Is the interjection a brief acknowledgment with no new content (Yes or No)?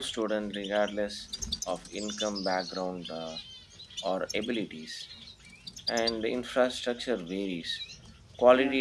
Yes